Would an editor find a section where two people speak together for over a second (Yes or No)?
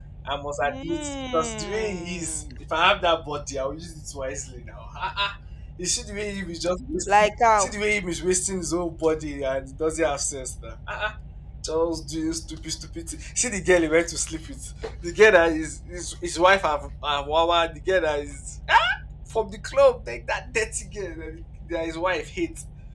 Yes